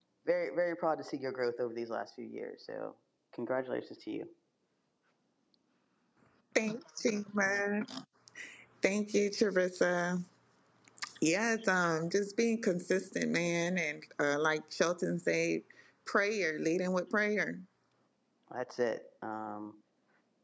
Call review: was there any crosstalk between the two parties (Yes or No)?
No